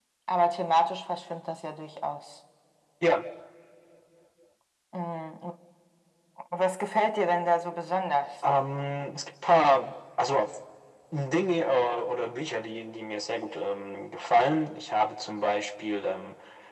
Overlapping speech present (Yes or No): No